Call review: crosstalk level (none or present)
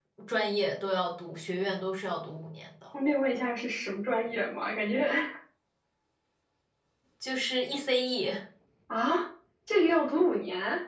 none